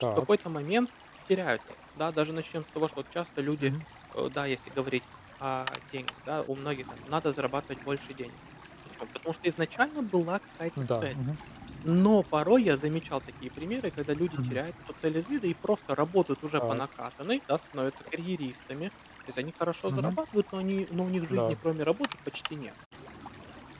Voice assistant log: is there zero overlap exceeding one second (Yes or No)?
Yes